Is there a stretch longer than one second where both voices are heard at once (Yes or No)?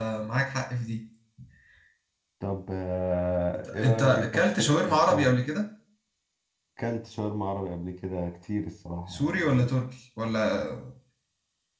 Yes